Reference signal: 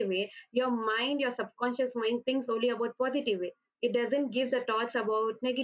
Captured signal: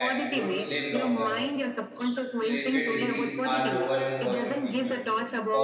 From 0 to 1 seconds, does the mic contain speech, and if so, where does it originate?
both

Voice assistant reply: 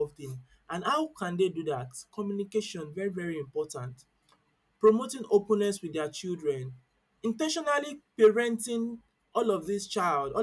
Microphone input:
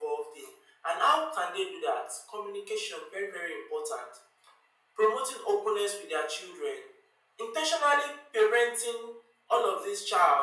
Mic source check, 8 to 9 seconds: echo only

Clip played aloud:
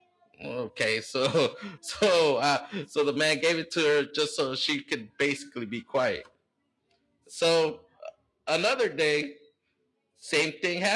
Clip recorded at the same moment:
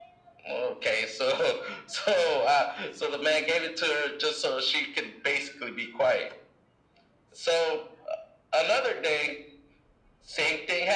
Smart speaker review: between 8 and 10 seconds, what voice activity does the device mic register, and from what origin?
echo only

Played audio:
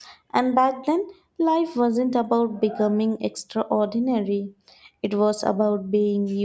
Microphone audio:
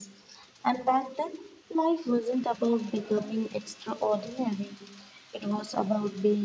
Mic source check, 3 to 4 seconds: echo only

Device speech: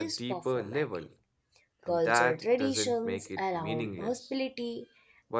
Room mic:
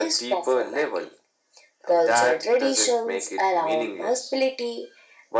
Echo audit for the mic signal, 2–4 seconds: echo only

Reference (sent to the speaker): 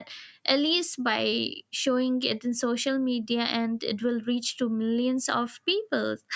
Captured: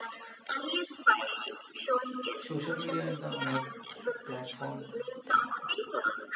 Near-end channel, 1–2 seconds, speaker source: echo only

